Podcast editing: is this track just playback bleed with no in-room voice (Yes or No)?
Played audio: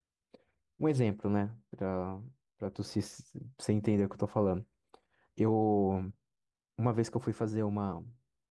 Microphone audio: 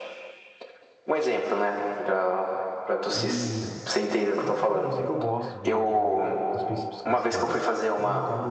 No